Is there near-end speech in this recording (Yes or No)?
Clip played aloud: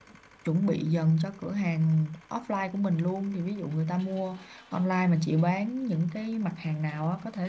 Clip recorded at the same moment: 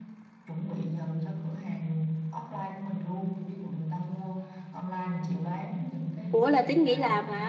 Yes